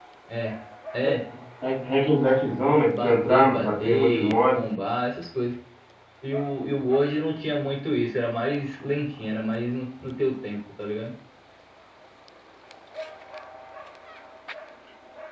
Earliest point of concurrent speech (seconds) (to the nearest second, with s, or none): 3 s